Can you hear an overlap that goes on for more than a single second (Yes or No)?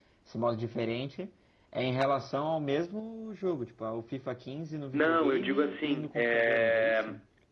Yes